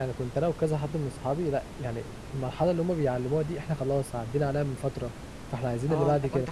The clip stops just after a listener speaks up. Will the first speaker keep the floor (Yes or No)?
No